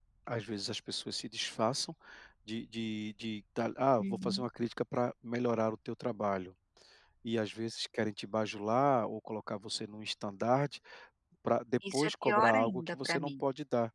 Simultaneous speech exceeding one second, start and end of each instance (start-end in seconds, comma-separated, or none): 11.9-13.4